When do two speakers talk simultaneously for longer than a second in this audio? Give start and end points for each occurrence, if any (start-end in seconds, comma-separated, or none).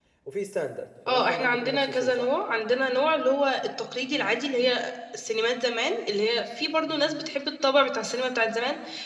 1.1-2.3